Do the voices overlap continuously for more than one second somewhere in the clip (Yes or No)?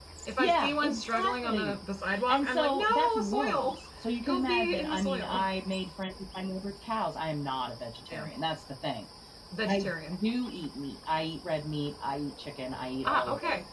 Yes